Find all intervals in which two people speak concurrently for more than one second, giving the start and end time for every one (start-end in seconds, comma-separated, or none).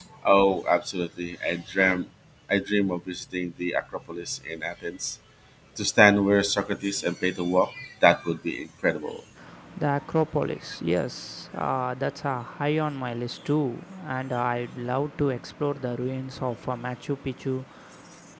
none